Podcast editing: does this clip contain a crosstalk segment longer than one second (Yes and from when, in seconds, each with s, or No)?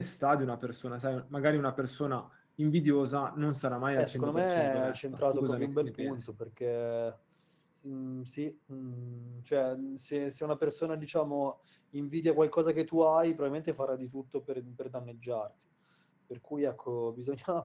Yes, from 4.0 s